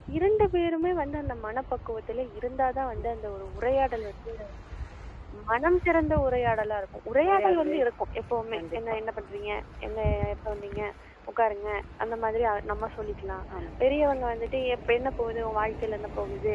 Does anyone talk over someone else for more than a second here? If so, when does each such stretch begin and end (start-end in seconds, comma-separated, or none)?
none